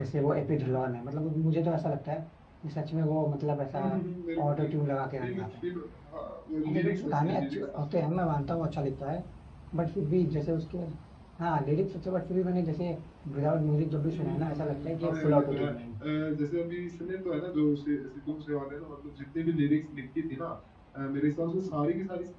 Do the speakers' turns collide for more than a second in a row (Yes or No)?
Yes